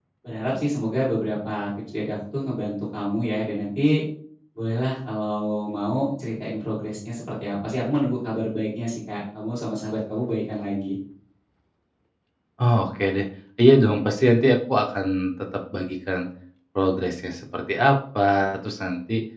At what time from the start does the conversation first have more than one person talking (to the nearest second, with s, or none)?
none